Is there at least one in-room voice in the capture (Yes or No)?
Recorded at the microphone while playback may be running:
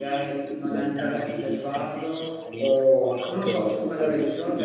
Yes